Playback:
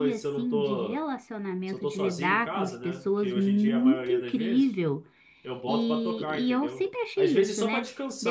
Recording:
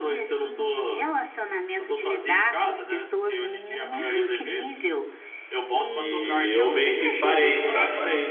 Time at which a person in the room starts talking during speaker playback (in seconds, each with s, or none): 5.9 s